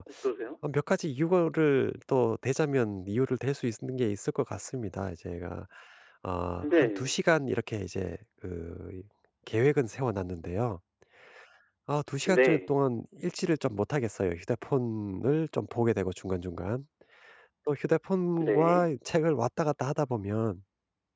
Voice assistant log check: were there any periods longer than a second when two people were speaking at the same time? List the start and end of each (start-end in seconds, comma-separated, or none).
none